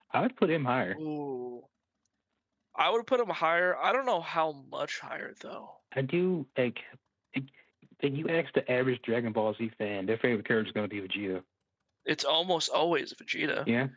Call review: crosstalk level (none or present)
none